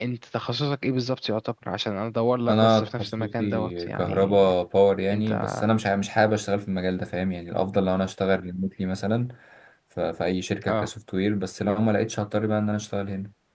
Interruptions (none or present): present